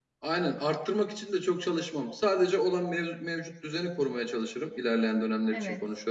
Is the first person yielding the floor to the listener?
No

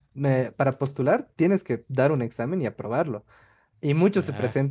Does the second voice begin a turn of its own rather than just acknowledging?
No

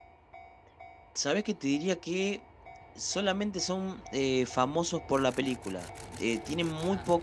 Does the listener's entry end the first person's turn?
No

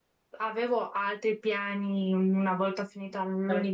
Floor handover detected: No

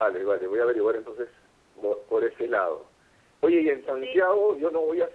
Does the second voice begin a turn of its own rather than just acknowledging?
No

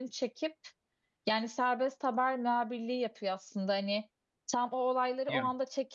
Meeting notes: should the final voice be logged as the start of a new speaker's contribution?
No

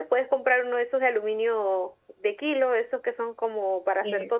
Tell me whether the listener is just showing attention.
Yes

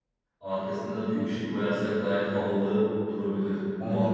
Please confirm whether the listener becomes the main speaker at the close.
Yes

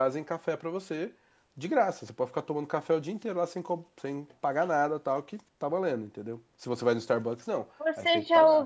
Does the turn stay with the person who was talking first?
No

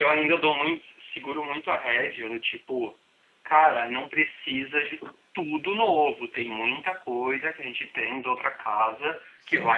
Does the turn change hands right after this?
No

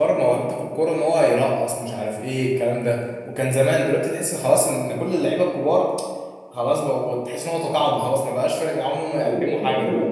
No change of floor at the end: No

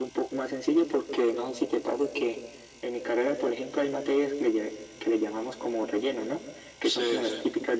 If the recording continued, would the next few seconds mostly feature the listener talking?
No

